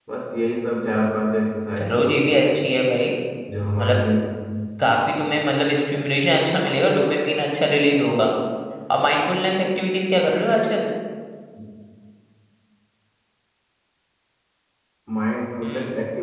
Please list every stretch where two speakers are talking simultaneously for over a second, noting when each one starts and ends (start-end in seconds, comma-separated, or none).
none